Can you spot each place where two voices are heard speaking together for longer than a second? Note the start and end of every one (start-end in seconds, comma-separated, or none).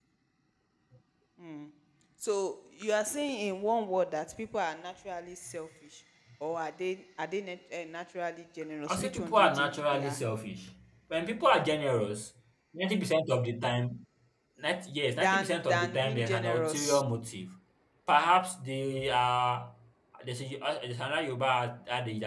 8.9-10.2, 15.2-17.0